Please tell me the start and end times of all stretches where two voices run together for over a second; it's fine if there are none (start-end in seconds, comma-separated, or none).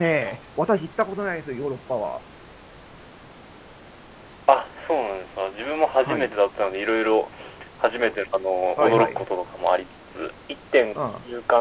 none